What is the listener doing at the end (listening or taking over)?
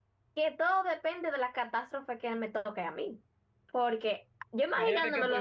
taking over